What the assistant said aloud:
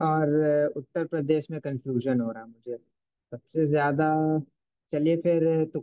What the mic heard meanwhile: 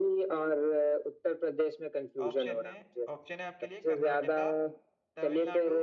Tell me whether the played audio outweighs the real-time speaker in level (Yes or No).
Yes